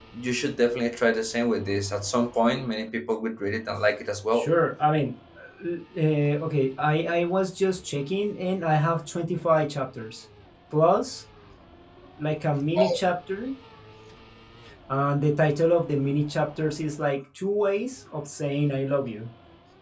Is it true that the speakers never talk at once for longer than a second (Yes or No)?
Yes